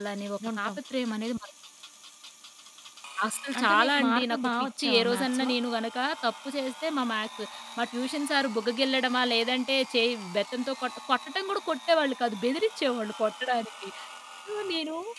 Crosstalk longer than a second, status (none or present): present